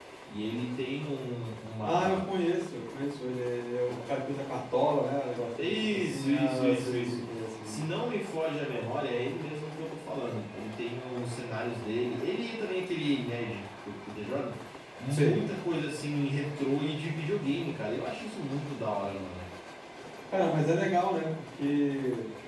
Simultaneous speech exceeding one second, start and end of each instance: 5.6-7.2

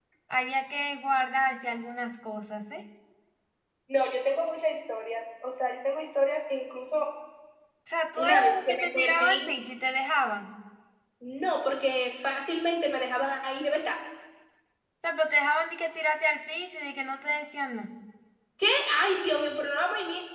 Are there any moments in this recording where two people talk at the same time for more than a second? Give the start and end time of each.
8.2-9.5

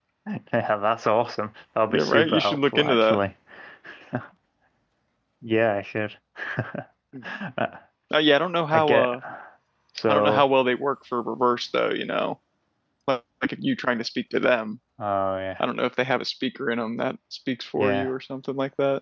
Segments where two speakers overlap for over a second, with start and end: 1.9-3.2

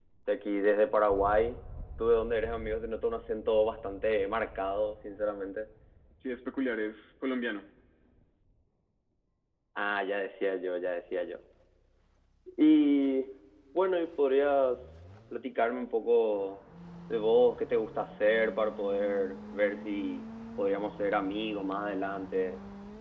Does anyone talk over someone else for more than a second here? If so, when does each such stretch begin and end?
none

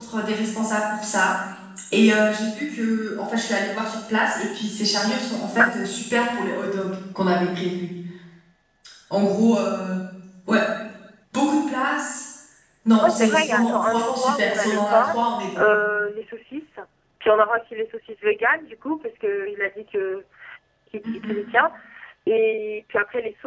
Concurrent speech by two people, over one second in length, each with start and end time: 13.0-15.2

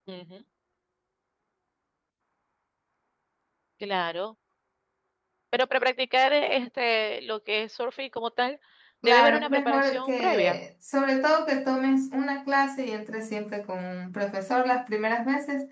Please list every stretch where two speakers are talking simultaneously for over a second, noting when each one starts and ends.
9.1-10.6

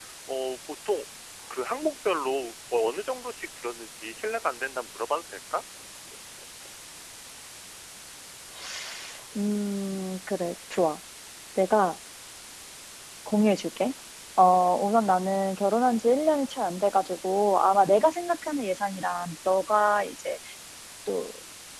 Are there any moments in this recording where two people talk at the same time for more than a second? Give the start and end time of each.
none

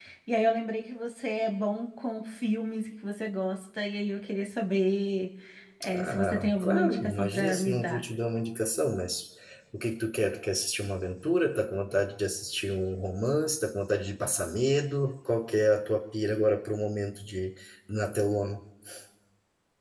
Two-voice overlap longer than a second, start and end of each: 5.9-8.0

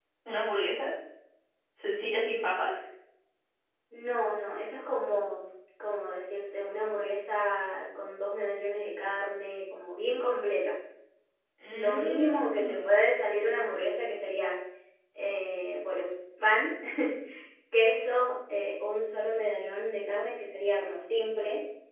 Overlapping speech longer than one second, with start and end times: 11.7-12.9

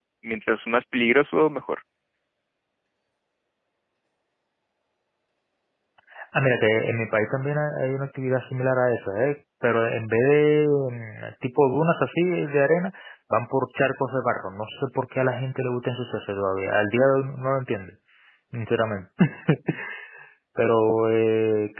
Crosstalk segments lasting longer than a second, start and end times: none

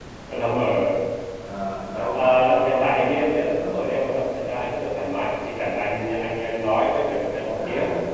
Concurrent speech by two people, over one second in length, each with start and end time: 2.0-4.0

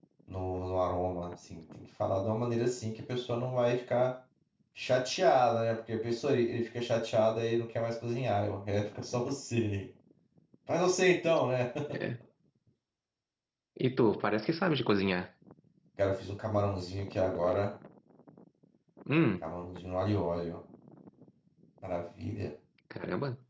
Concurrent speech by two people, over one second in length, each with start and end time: none

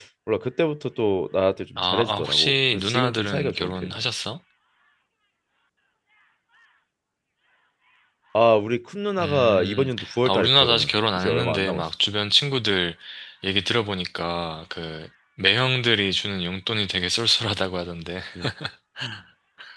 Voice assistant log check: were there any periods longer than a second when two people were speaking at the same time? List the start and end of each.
1.8-4.0, 9.2-11.8

